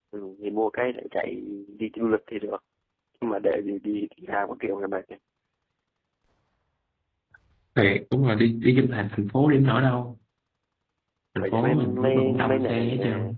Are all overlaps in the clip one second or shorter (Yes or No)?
No